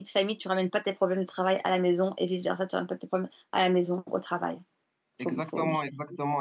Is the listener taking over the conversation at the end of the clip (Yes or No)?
Yes